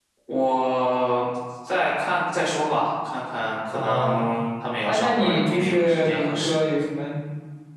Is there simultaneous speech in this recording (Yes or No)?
Yes